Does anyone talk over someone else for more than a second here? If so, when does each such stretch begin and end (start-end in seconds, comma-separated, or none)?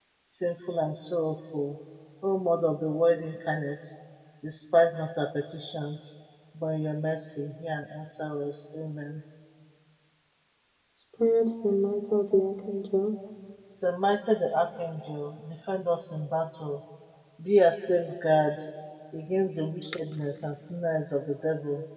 none